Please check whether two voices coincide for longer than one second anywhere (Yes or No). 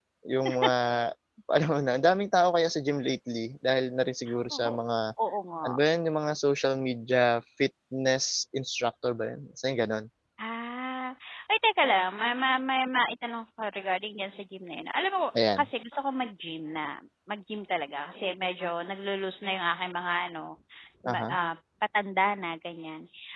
No